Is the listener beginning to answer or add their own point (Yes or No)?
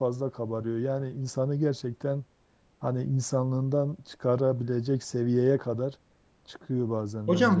Yes